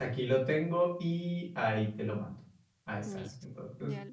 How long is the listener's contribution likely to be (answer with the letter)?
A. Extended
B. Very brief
A